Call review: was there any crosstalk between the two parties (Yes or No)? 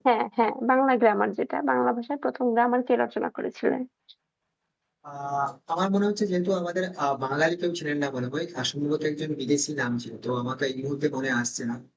No